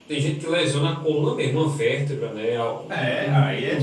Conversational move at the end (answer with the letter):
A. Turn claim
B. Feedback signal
A